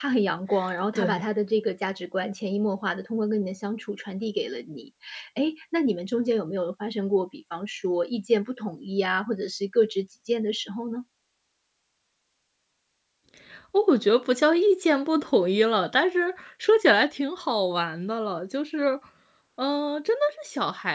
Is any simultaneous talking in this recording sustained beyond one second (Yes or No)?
No